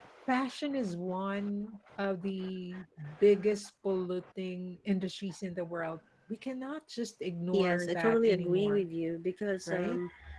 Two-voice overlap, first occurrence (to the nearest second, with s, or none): 8 s